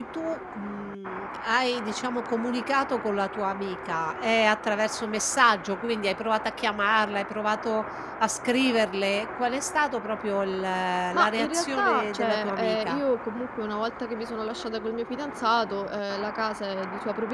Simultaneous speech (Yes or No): Yes